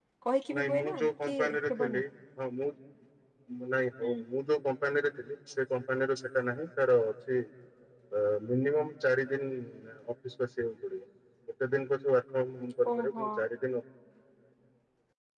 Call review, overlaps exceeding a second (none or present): present